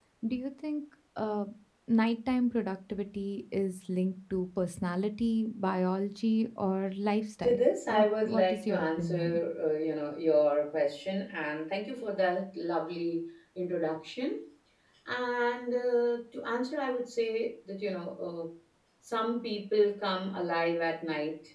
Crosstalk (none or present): present